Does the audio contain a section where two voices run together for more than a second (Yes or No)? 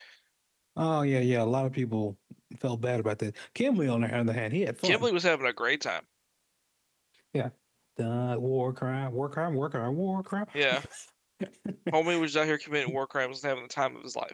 No